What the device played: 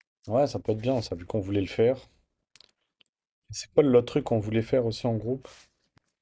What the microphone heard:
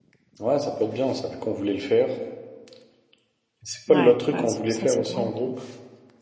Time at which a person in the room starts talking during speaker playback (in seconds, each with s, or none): 3.9 s